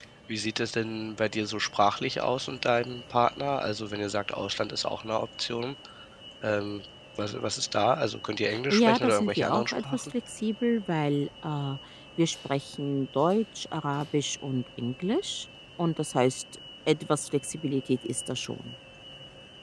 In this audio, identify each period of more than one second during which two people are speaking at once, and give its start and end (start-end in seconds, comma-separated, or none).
8.7-10.1